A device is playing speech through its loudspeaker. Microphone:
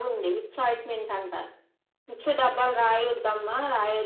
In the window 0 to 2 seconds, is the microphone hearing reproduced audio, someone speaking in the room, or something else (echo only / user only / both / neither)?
echo only